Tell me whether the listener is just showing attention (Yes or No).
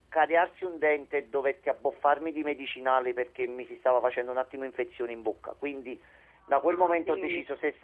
Yes